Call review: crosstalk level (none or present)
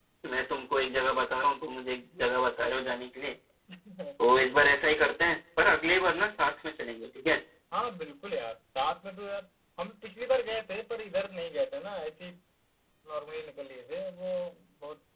none